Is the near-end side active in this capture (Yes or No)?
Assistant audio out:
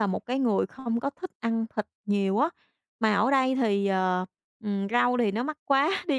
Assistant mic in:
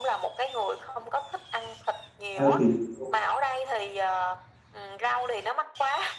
Yes